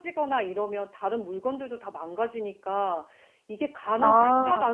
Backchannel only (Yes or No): Yes